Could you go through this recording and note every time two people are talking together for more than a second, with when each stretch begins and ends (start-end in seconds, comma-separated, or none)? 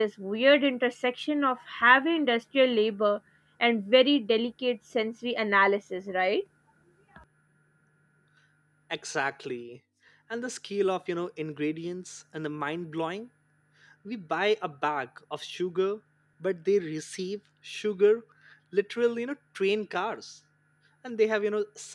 none